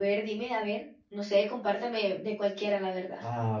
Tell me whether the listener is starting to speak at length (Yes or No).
Yes